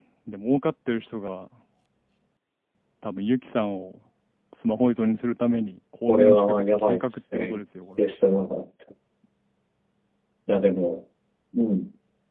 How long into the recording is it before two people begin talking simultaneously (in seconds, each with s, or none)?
6.1 s